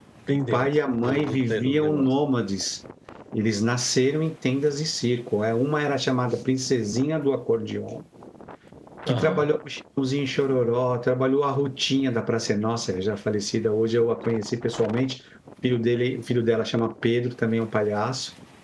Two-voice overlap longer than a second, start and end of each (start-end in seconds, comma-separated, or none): 0.5-2.1